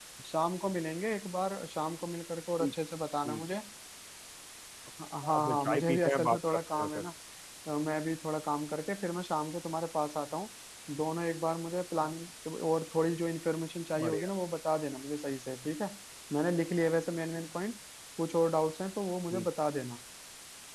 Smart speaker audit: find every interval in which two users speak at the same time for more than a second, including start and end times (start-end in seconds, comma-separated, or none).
5.2-7.0